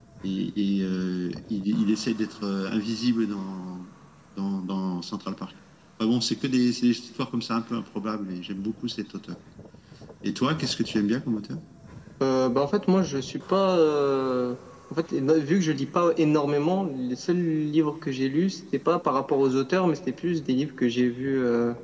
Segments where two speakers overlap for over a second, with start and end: none

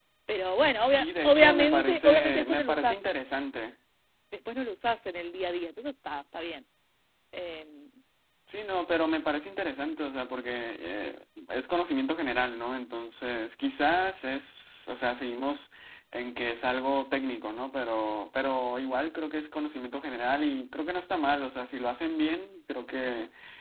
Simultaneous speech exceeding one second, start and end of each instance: 0.8-3.0

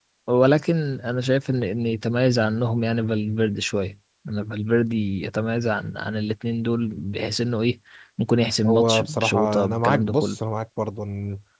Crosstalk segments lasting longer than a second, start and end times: 8.7-10.4

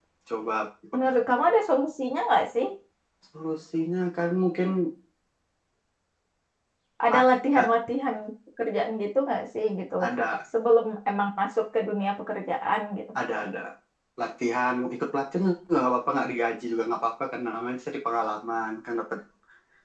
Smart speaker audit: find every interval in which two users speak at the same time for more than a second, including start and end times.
none

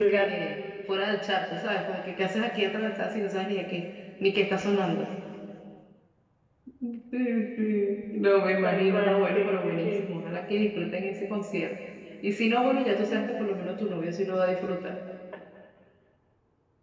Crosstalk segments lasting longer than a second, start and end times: 8.6-10.1

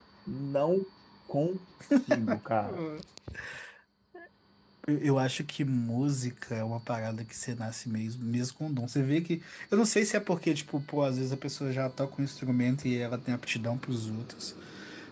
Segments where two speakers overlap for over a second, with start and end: none

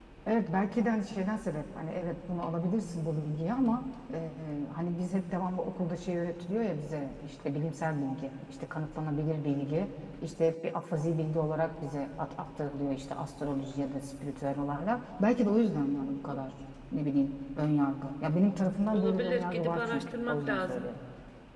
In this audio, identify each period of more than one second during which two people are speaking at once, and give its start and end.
18.9-20.9

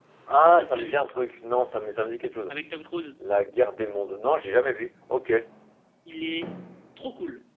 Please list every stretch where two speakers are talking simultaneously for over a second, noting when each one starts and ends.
none

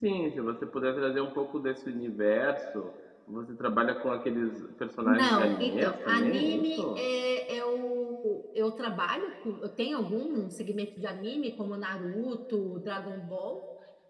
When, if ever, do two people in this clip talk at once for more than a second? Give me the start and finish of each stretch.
5.0-7.0

